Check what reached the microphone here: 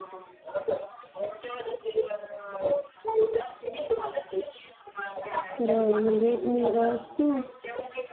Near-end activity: present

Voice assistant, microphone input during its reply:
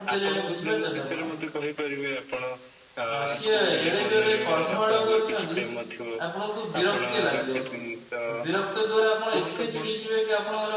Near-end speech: present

